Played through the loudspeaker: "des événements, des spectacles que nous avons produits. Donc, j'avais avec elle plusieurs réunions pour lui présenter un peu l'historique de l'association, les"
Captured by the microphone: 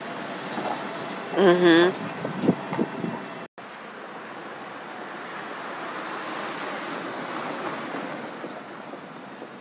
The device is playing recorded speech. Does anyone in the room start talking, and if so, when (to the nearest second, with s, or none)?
1 s